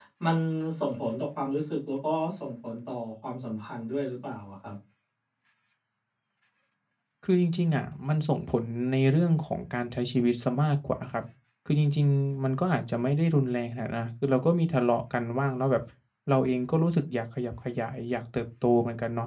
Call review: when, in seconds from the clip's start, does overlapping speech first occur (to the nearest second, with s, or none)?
none